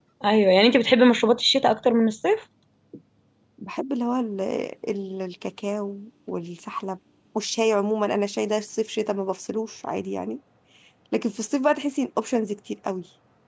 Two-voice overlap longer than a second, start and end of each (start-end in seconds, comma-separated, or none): none